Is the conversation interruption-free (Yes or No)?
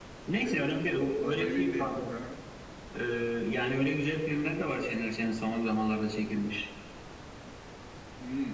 No